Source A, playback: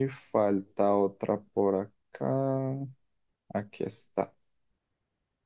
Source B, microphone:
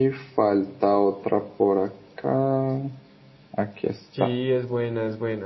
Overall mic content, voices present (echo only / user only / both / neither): both